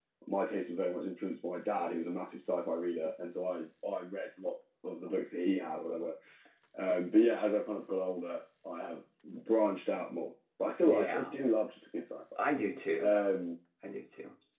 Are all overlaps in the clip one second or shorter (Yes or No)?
Yes